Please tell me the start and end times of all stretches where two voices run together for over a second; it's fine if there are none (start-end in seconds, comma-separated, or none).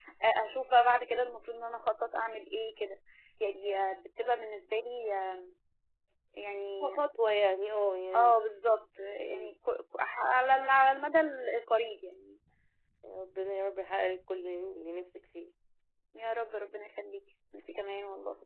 none